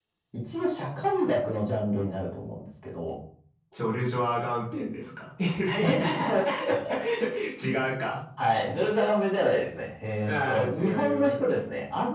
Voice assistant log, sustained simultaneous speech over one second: present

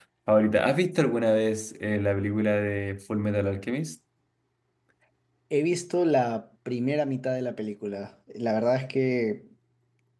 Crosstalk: none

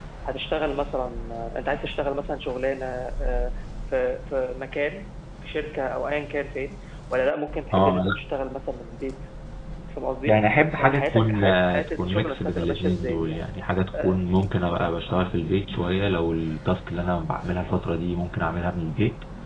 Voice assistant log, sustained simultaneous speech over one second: present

